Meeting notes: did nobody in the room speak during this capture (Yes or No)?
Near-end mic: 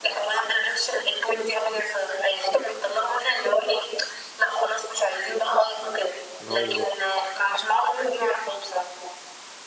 No